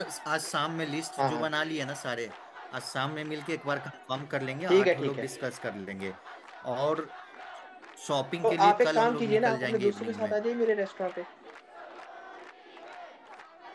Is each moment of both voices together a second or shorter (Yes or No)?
No